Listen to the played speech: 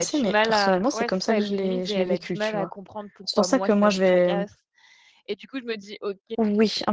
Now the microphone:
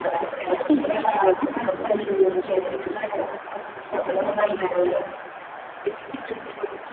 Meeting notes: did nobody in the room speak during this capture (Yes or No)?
Yes